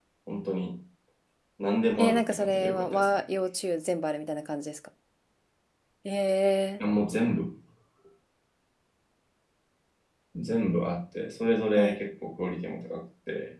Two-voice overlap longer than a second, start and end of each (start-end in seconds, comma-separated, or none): 2.0-3.2